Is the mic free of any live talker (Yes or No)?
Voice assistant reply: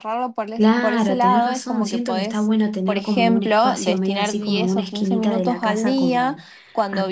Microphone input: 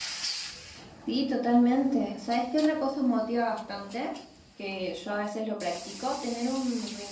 No